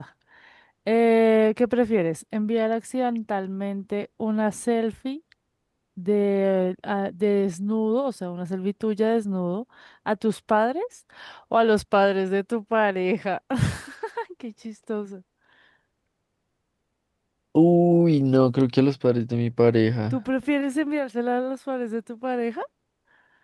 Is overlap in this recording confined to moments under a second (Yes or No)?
Yes